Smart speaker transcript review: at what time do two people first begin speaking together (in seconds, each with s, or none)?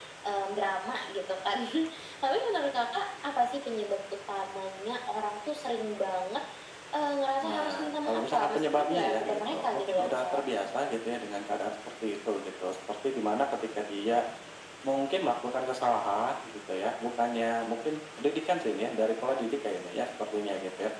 7.4 s